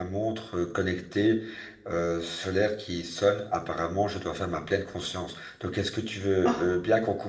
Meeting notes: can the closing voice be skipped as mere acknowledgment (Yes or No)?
Yes